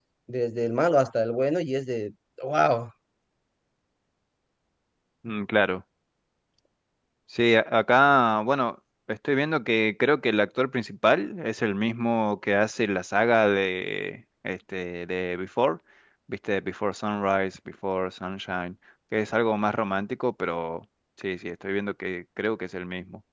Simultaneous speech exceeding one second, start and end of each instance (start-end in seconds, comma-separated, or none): none